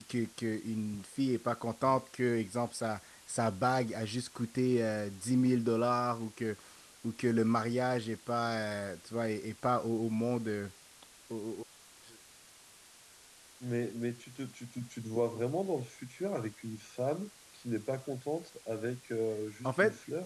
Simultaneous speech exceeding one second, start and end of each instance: none

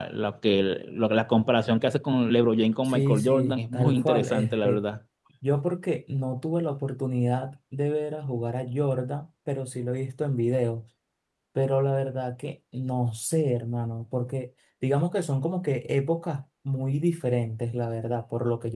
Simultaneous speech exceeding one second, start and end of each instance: 2.9-4.8

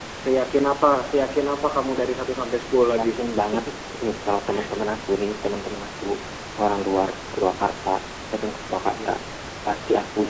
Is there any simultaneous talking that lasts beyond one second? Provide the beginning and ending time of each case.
none

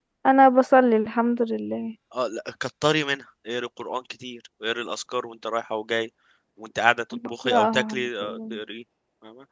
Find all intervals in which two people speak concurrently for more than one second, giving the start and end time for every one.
7.3-8.6

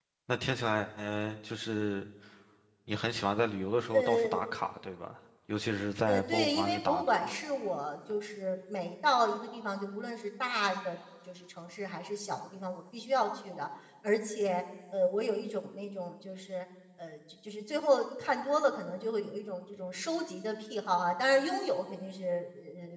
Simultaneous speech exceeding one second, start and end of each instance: 6.1-7.4

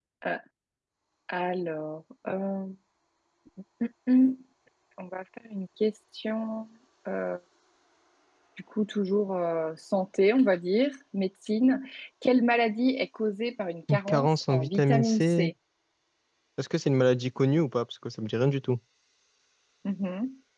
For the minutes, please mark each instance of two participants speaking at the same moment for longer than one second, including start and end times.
13.9-15.5

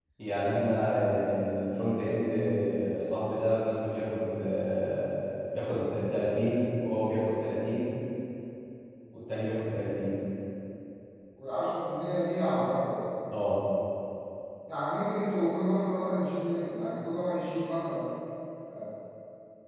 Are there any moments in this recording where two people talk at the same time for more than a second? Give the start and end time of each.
none

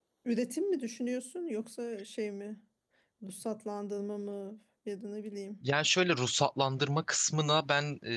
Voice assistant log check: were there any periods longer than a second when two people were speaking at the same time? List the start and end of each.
none

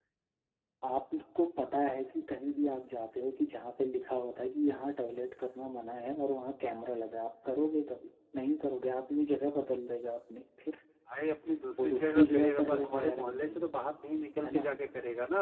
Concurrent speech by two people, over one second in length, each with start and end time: 11.8-13.7

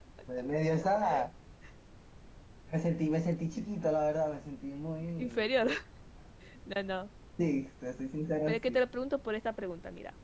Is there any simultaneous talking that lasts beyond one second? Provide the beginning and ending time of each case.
none

